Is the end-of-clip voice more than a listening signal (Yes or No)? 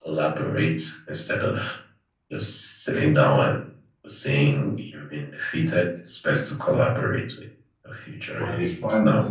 Yes